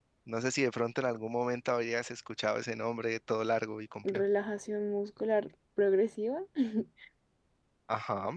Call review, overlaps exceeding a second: none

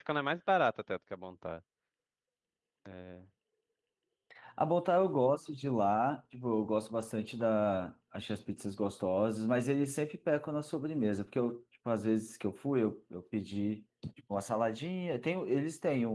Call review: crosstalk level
none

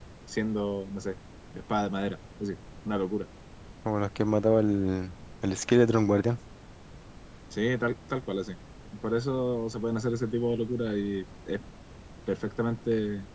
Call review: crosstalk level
none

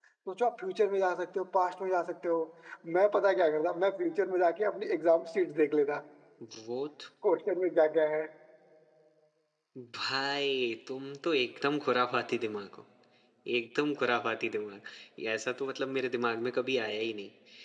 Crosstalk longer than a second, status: none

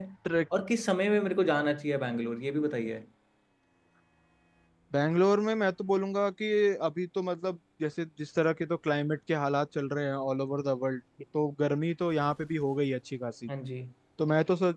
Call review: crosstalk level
none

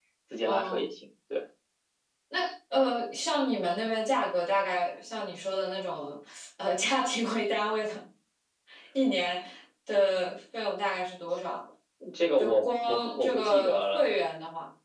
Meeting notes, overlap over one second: present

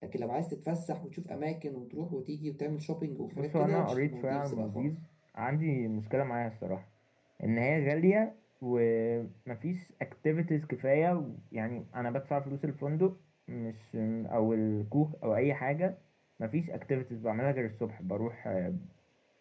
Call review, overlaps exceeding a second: present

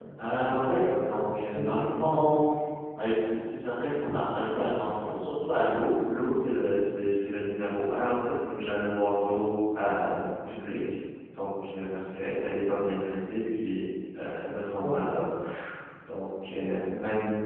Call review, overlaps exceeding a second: present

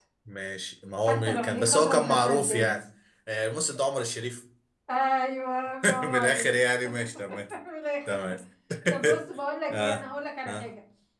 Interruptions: present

